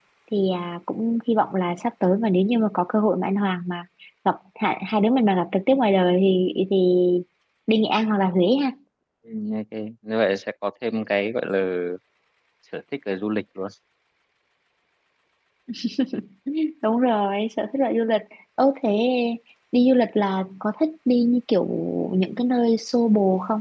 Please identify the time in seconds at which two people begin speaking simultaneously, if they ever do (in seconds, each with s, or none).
none